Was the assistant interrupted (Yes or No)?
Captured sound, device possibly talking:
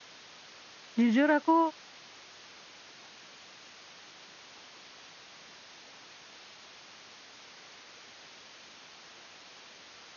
Yes